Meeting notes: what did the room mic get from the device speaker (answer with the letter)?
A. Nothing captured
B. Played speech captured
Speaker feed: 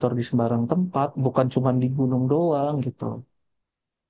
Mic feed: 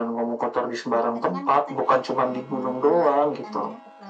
B